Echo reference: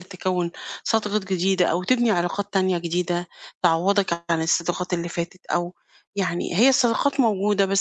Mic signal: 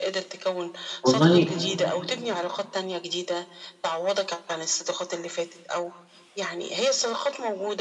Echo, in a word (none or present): present